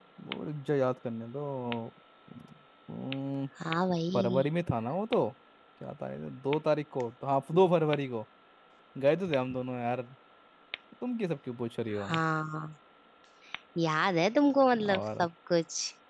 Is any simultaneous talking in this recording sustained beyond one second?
No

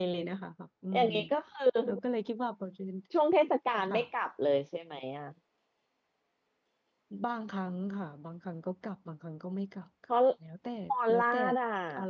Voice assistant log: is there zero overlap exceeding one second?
Yes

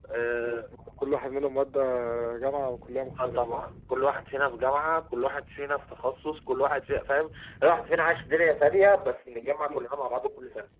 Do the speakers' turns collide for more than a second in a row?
No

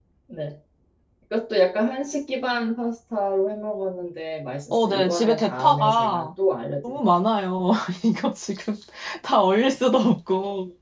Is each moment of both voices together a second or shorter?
No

